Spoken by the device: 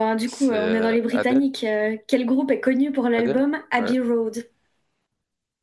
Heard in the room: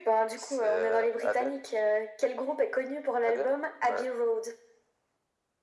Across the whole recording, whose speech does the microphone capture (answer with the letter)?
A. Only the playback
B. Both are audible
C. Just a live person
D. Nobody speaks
A